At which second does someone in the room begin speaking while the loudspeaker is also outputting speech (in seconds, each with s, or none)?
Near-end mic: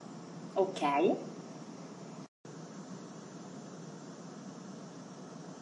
0.6 s